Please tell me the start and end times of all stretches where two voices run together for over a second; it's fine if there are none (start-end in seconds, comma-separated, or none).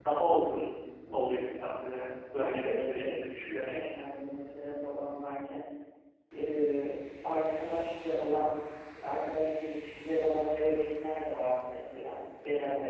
2.4-3.9